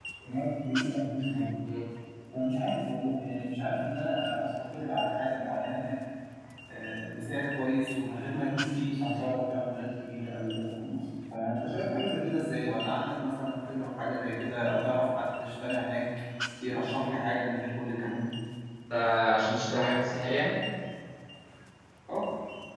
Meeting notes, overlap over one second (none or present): none